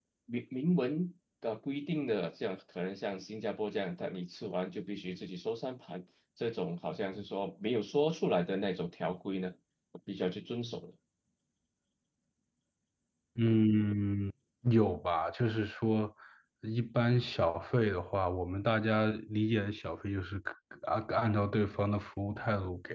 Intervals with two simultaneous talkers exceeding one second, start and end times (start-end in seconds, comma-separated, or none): none